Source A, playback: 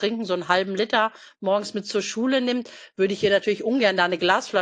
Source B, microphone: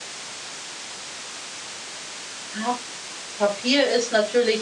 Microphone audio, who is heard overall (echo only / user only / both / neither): user only